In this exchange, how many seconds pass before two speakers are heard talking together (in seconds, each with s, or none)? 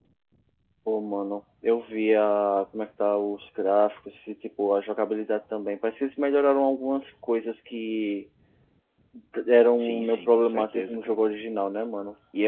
9.8 s